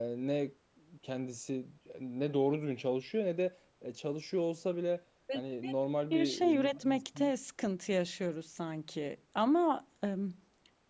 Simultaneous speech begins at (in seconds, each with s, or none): 6.1 s